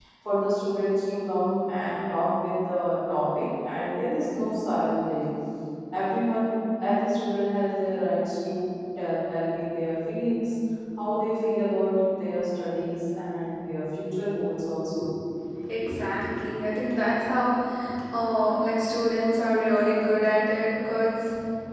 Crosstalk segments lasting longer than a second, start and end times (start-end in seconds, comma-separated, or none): none